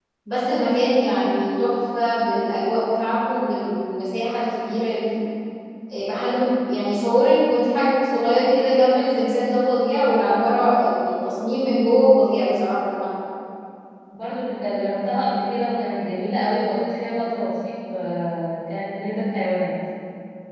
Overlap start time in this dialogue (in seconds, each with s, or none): none